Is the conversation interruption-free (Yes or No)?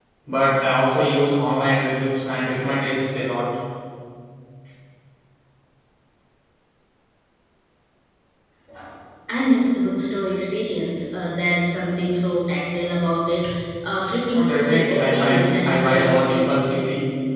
No